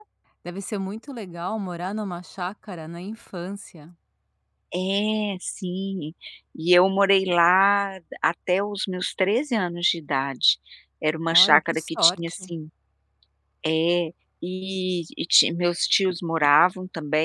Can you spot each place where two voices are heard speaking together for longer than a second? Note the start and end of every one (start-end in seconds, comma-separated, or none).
11.3-12.5